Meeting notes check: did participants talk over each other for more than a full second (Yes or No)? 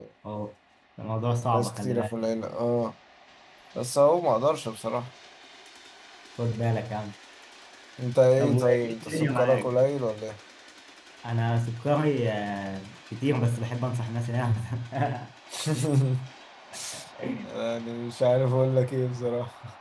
Yes